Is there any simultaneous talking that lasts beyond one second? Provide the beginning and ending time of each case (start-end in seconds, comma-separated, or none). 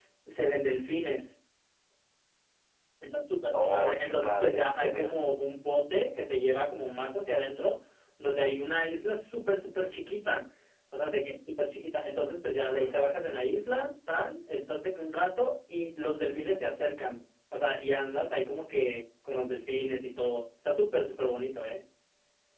3.5-5.1